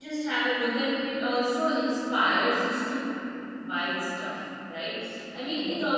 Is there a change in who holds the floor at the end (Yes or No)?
No